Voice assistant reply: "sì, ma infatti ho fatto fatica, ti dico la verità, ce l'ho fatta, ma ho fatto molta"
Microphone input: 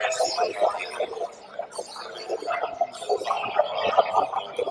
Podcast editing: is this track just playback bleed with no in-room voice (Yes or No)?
Yes